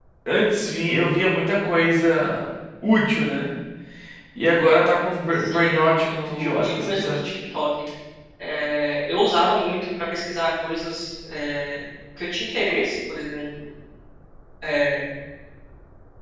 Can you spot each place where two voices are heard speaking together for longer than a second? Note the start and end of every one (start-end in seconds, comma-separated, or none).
5.3-7.2